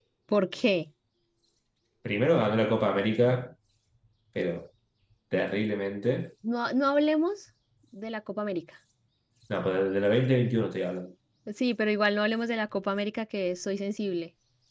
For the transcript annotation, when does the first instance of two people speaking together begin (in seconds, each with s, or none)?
none